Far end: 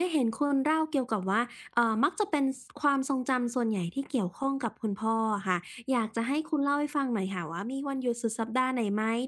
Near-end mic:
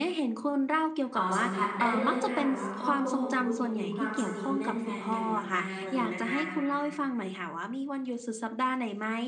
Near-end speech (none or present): present